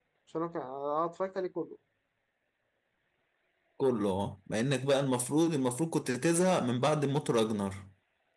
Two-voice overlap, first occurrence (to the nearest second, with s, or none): none